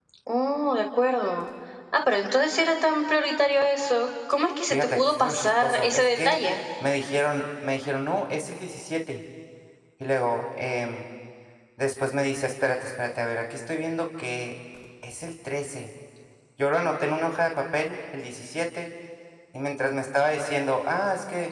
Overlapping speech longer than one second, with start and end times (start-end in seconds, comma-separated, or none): 4.7-6.4